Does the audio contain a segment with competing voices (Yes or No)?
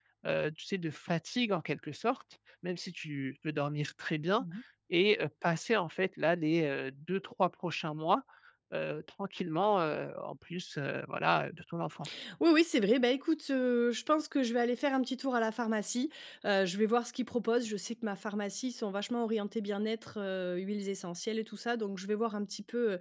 No